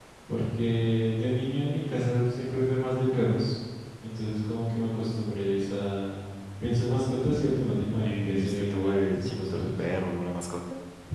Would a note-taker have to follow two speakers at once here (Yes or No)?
Yes